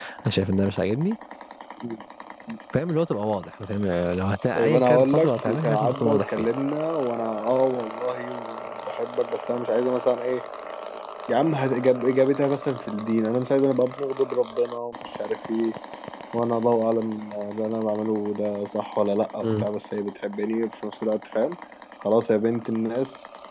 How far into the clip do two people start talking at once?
5 s

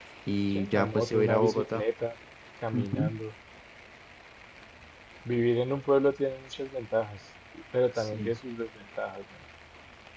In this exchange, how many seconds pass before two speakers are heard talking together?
1 s

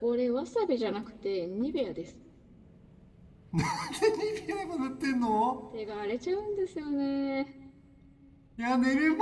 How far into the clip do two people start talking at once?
none

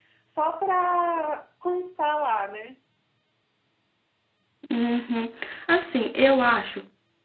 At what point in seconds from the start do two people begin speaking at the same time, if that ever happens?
none

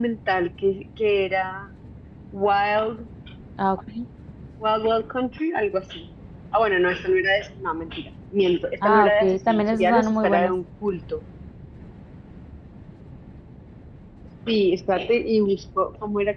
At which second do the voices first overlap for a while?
9 s

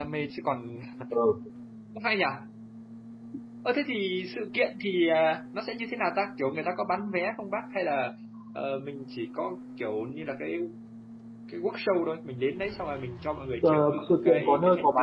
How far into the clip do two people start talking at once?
14 s

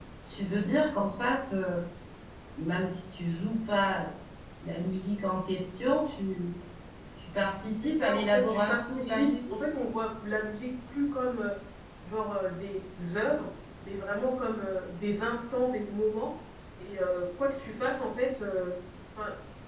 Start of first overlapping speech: 8 s

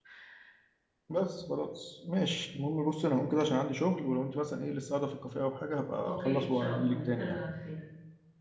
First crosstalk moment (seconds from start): 6 s

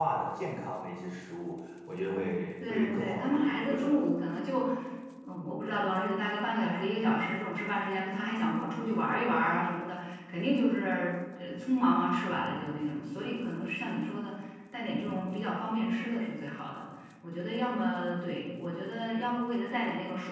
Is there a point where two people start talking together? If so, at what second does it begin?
3 s

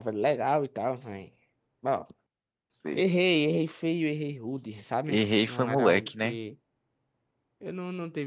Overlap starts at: 5 s

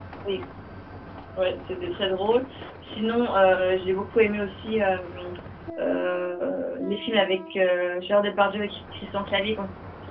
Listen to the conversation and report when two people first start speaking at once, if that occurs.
none

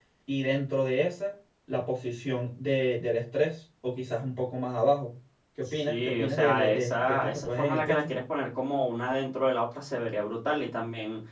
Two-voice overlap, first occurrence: 6 s

